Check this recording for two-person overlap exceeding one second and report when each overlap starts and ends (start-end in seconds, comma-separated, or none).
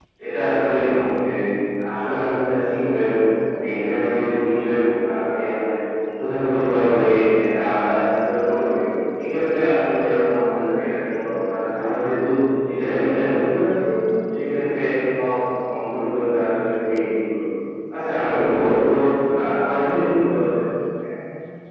none